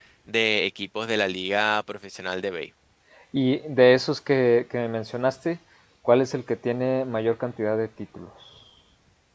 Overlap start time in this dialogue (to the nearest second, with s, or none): none